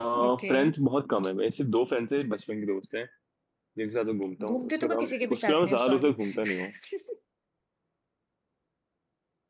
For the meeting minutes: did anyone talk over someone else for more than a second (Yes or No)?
Yes